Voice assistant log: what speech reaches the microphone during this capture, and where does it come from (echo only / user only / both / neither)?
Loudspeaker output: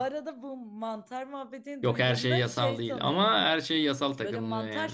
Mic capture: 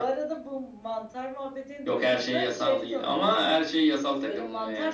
echo only